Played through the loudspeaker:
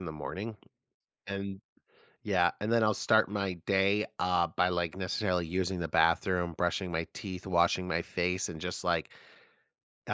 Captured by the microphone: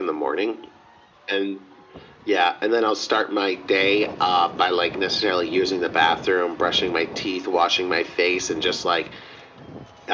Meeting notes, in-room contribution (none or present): none